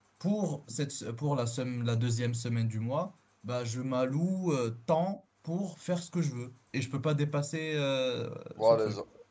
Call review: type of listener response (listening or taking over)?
taking over